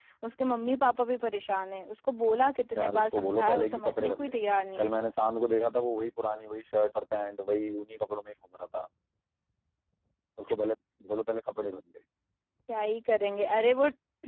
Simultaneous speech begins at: 3 s

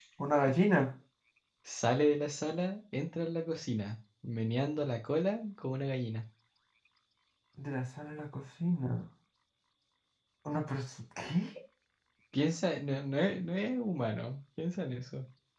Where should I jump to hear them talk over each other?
none

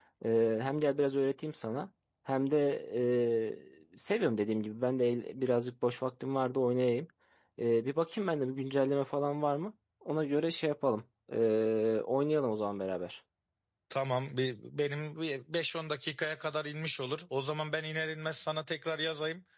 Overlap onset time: none

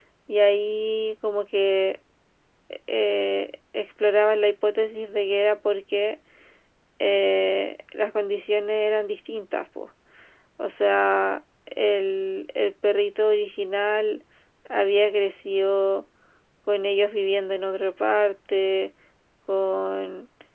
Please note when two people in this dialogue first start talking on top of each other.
none

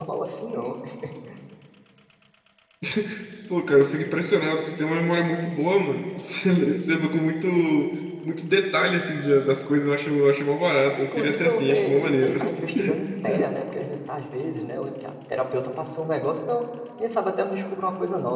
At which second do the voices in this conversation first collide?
11 s

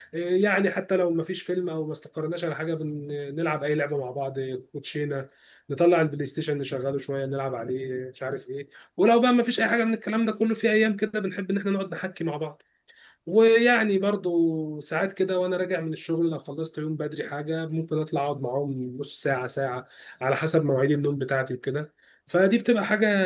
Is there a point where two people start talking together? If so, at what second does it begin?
none

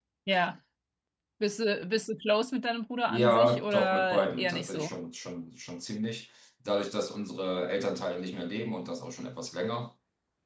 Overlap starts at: 3 s

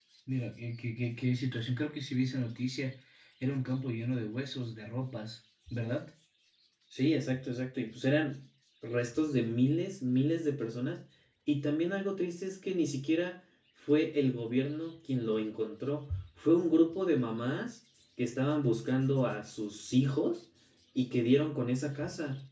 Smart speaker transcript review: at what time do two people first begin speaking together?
none

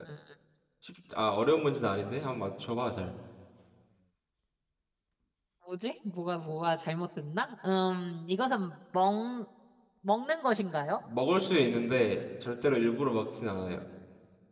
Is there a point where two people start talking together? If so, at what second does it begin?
none

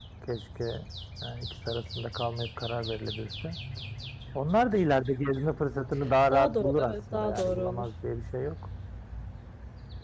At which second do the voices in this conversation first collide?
6 s

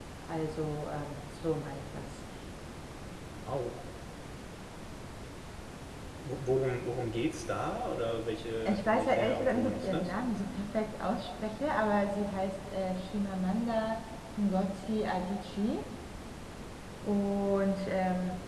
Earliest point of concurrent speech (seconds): 9 s

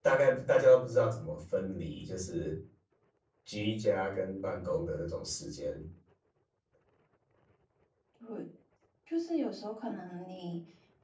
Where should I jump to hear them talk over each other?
none

